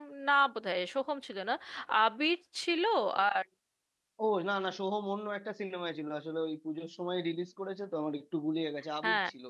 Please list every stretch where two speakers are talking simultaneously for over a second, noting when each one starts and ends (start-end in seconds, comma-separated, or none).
none